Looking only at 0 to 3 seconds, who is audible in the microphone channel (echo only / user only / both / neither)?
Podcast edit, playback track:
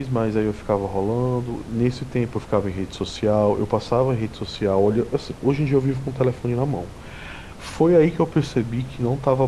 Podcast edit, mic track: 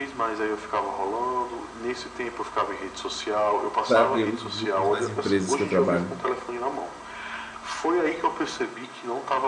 echo only